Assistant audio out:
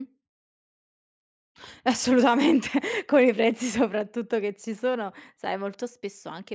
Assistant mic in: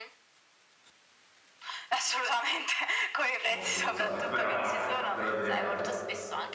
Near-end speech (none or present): present